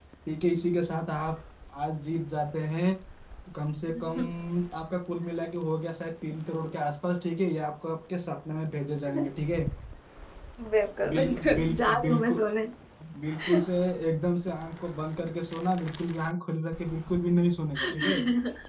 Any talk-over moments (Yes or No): Yes